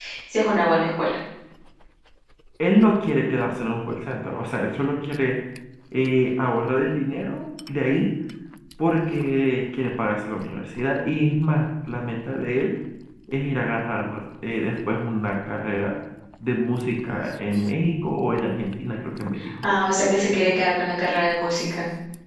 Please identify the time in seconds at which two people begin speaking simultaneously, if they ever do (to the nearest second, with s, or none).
none